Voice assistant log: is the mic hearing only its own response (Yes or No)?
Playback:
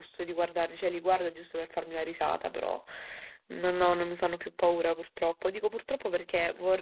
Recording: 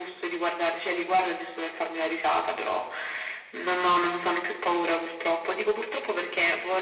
Yes